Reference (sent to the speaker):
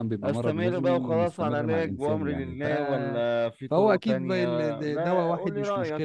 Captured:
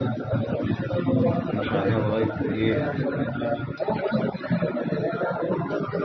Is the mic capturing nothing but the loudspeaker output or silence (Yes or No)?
No